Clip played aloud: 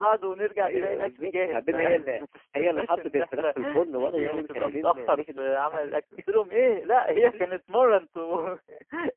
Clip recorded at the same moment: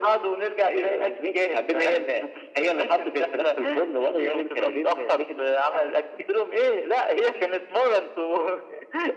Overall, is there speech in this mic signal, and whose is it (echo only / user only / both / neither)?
echo only